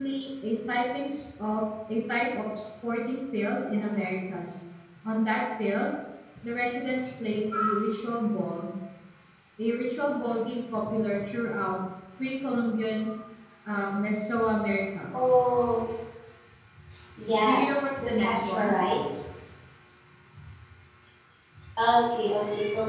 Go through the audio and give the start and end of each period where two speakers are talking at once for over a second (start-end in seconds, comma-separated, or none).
17.4-18.8